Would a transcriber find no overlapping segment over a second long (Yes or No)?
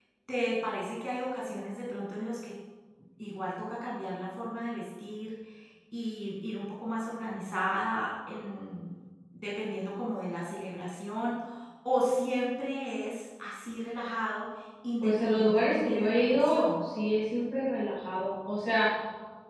No